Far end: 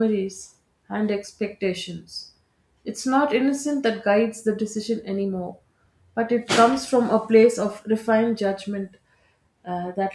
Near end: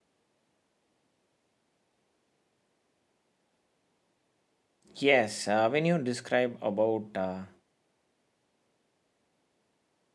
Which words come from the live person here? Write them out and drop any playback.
Yes, uh, when you describe about uh,

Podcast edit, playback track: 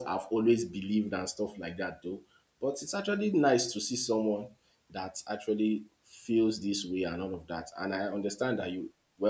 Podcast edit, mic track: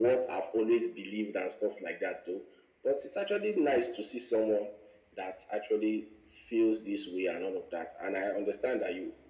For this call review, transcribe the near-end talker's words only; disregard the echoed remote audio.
none

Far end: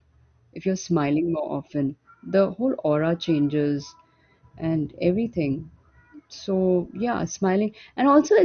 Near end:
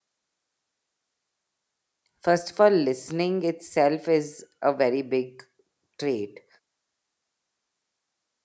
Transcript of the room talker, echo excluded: First of all, listening itself is a very big trait.

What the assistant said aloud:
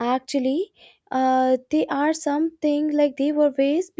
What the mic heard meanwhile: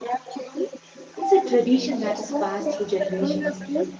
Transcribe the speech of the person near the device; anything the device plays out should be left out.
it's a tradition that is passed through generations.

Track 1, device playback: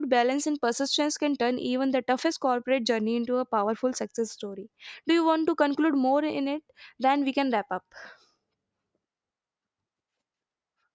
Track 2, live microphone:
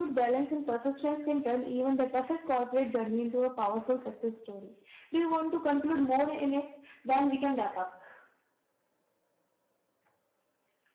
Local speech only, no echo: none

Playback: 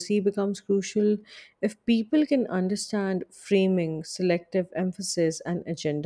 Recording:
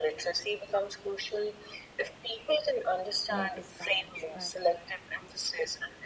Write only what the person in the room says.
notice bias, but

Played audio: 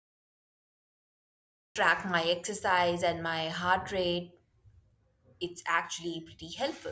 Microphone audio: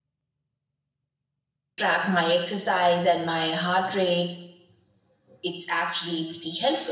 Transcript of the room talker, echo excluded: none

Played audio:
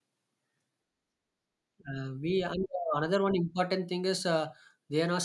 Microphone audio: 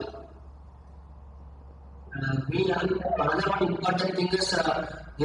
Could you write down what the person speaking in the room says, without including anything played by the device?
none

